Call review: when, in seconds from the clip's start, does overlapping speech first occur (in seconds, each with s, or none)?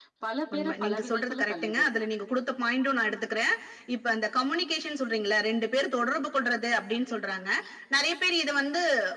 0.5 s